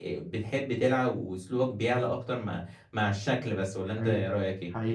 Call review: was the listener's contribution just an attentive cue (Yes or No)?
No